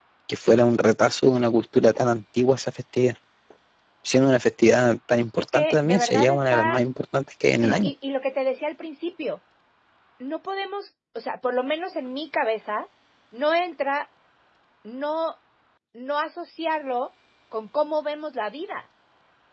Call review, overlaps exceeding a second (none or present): present